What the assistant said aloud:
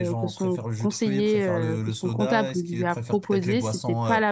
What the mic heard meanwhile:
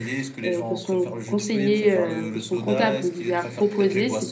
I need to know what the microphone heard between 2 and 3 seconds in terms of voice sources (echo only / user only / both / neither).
echo only